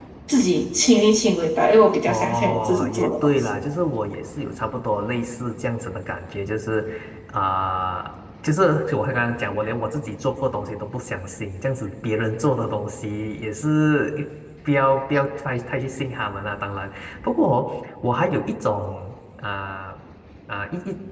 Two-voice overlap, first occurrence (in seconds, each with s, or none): 2.1 s